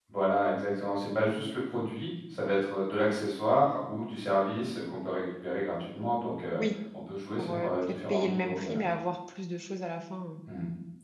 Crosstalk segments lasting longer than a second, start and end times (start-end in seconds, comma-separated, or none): 7.4-8.9